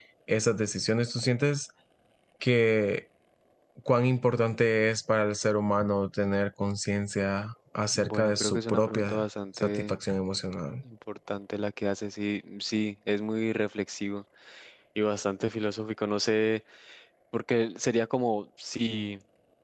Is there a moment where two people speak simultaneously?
Yes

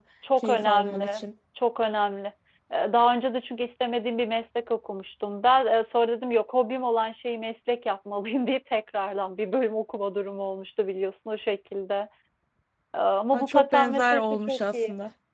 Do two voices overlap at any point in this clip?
Yes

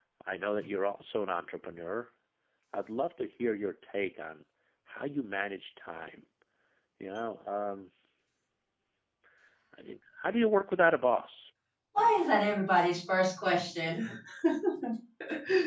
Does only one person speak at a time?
Yes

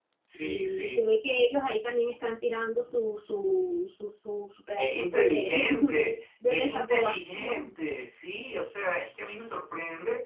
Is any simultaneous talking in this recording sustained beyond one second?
Yes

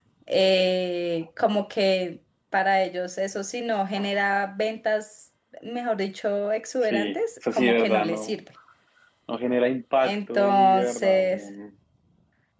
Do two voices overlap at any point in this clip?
Yes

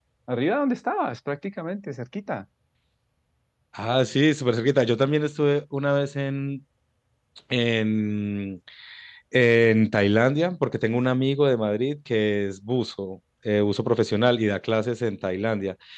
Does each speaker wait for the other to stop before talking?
Yes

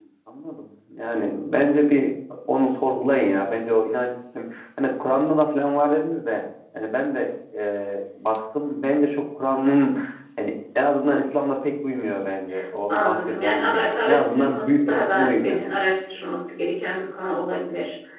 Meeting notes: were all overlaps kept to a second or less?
No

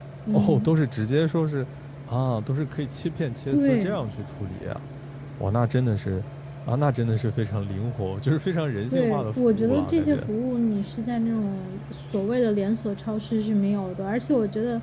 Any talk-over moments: Yes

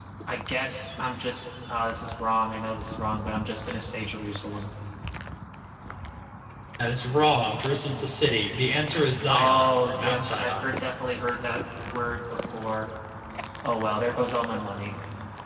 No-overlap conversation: No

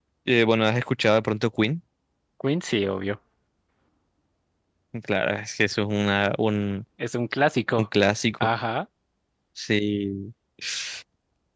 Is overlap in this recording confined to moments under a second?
Yes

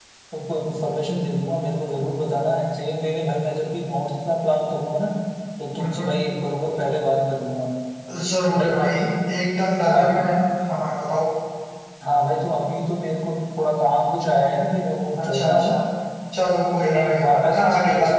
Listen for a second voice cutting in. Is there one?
Yes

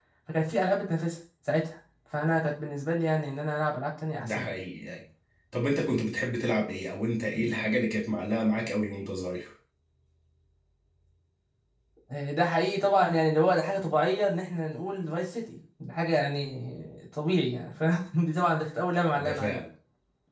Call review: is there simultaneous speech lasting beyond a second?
No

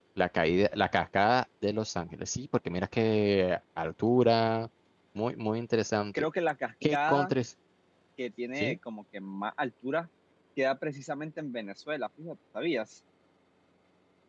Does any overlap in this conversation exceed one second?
No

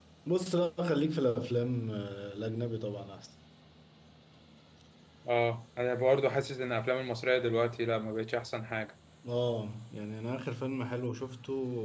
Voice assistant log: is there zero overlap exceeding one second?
Yes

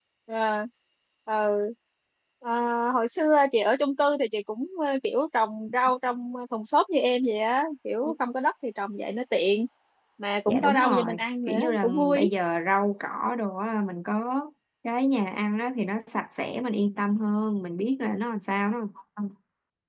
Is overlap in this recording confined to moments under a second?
No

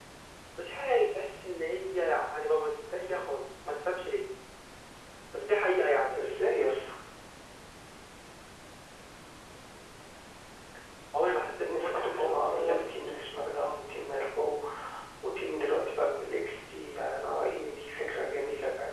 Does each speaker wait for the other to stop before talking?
No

